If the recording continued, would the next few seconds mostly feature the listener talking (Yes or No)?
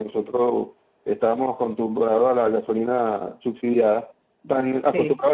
No